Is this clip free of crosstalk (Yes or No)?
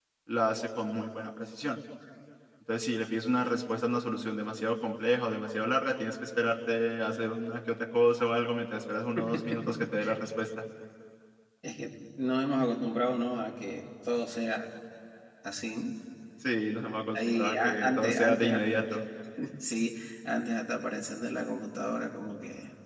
No